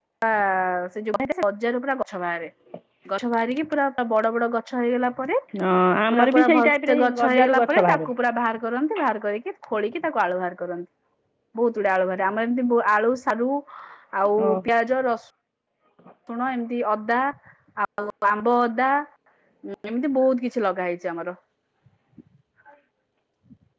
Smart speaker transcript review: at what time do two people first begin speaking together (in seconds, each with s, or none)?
6.1 s